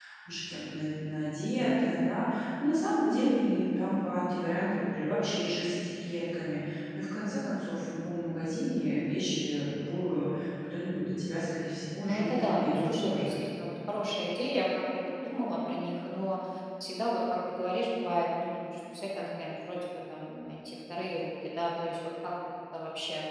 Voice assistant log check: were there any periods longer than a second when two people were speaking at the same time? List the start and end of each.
12.0-13.3

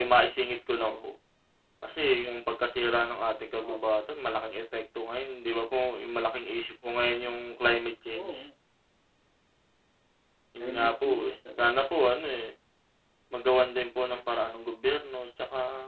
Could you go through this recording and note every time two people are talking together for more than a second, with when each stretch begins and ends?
10.6-11.8

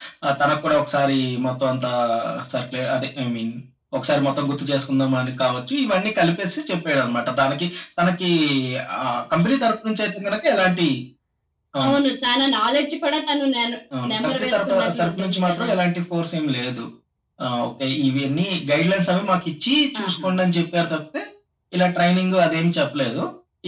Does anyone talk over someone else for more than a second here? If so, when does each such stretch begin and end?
14.1-15.7

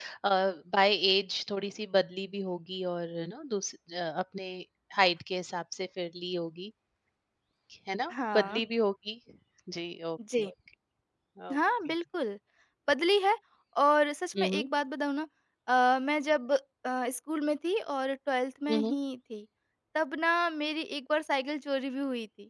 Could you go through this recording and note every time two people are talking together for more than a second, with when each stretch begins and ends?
none

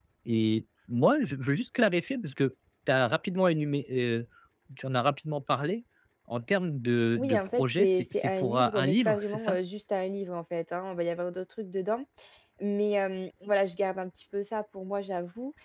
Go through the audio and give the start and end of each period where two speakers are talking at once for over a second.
7.2-9.6

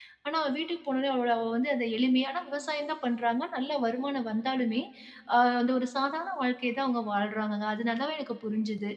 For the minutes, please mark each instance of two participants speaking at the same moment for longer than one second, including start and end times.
none

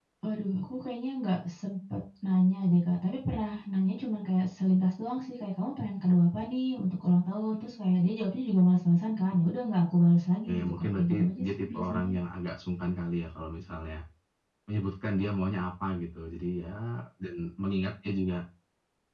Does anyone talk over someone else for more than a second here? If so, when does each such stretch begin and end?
10.5-12.1

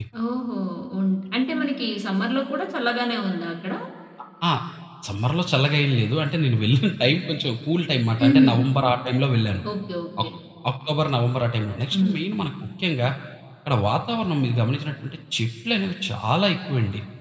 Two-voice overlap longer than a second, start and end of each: none

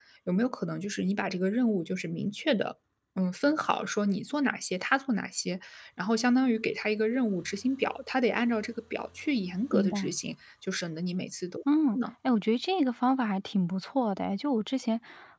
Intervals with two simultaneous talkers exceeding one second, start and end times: none

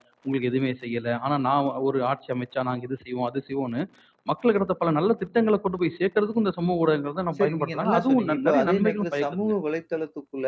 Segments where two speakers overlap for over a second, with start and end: 7.4-9.5

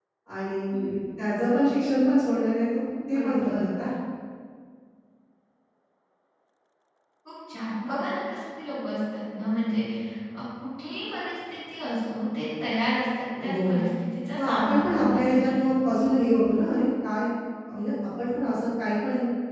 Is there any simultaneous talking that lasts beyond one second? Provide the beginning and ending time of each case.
14.4-15.6

